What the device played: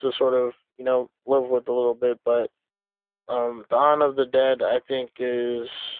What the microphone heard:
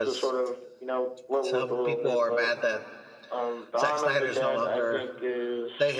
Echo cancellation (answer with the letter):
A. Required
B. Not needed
A